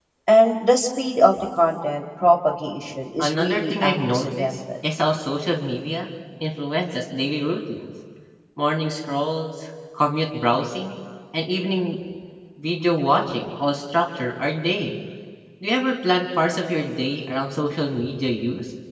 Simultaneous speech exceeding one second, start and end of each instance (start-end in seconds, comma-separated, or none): 3.2-4.6